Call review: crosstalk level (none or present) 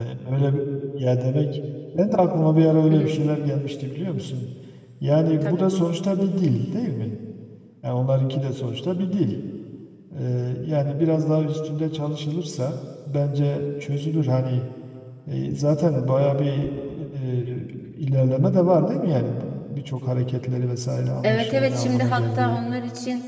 present